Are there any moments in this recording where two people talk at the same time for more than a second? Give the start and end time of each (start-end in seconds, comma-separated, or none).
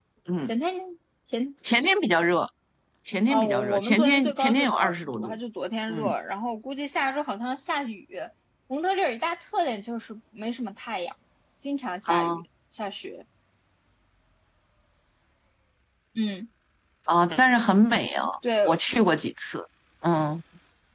3.3-5.4